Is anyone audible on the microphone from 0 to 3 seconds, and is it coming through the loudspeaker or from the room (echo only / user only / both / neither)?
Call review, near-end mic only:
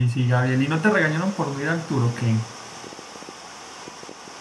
user only